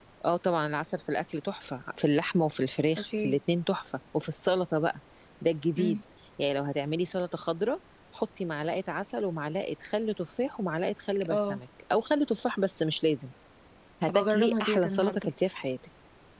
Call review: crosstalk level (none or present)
present